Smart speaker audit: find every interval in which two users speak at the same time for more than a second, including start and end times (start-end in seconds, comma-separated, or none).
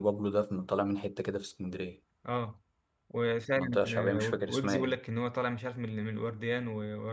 3.5-5.0